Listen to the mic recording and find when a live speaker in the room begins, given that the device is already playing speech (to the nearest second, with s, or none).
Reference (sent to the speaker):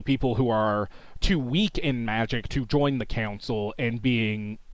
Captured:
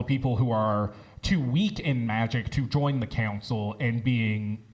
none